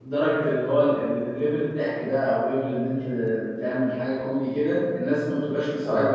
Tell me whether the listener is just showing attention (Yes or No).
Yes